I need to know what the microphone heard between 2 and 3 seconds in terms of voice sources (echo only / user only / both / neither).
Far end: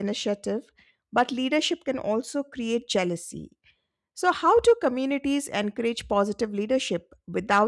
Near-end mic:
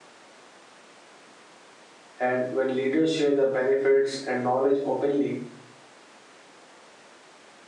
user only